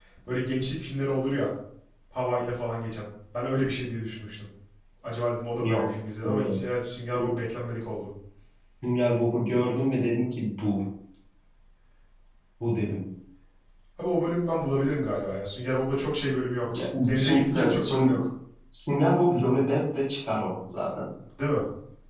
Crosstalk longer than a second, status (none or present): present